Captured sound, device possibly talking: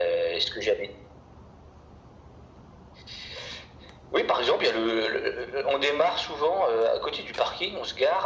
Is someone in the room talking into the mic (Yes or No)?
No